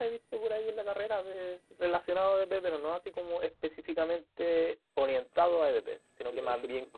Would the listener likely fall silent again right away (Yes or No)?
Yes